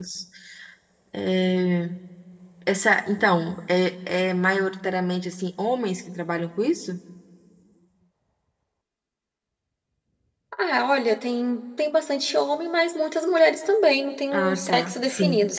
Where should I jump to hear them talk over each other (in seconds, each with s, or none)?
14.3 s